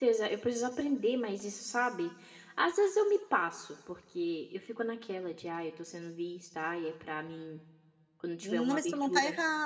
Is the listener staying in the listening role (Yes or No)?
No